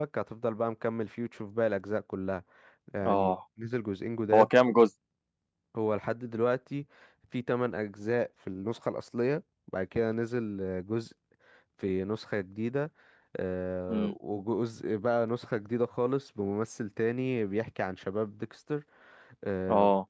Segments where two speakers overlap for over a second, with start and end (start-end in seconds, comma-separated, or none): none